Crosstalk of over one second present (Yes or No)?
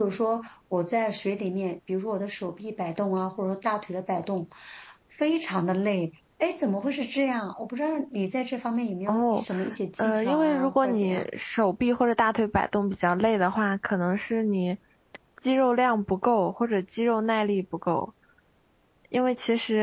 Yes